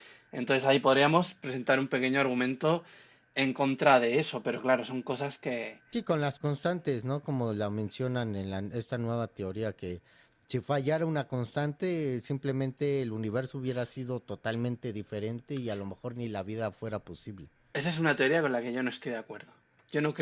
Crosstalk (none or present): none